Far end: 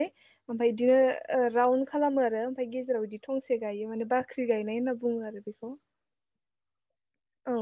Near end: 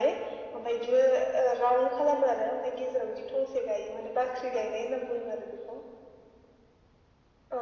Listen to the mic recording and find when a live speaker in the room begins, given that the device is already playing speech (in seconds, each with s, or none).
none